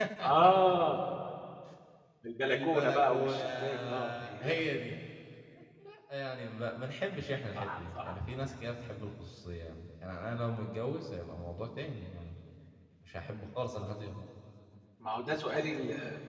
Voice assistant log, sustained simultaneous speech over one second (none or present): present